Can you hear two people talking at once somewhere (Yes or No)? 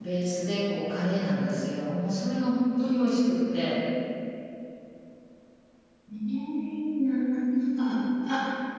No